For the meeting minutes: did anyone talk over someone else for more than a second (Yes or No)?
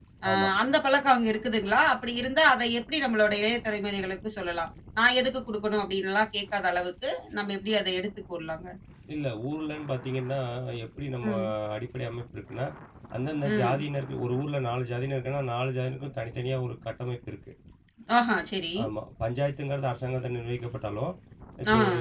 No